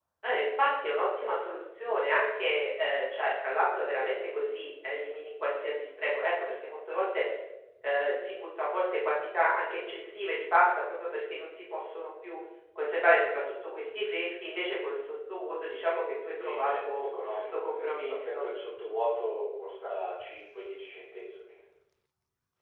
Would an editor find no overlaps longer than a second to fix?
No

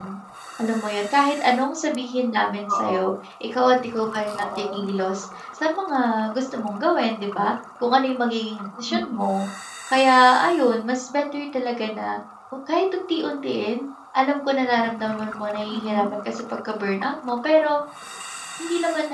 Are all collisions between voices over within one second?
Yes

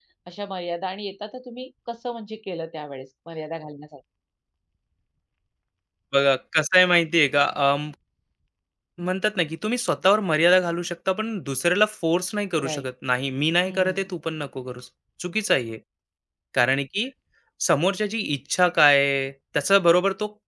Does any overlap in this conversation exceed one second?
No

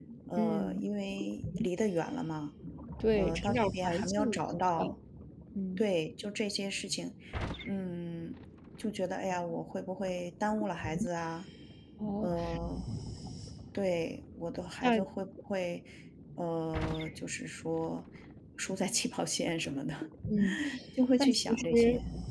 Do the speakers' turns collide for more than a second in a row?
Yes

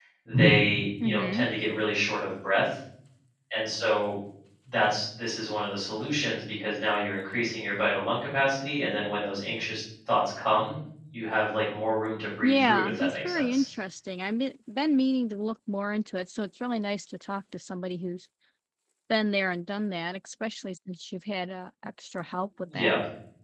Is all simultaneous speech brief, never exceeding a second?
No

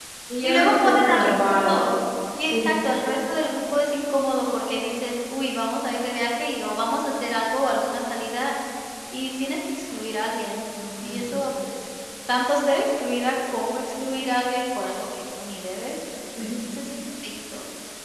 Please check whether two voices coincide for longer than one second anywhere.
Yes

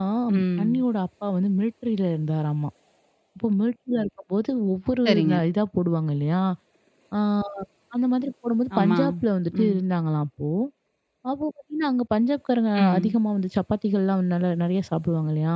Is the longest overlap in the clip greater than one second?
No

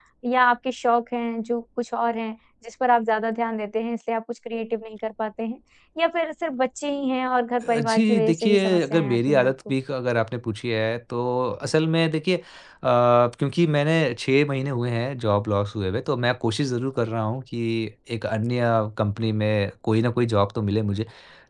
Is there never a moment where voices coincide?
No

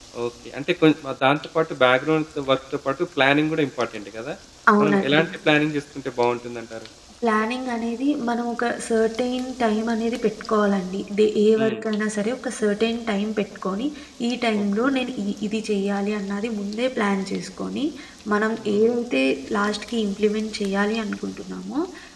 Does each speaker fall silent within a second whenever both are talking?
Yes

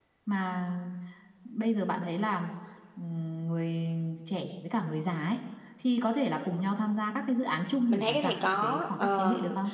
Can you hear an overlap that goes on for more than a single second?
Yes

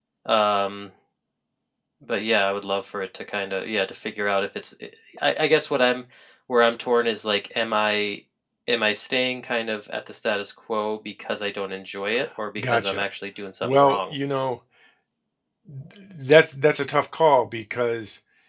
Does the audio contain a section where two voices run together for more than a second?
No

